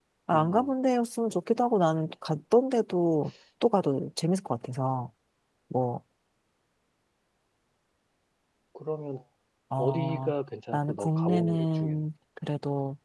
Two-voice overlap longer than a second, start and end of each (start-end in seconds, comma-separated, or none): 10.7-12.0